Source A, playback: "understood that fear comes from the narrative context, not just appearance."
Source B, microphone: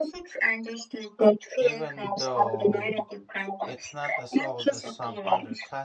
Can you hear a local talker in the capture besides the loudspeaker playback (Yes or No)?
Yes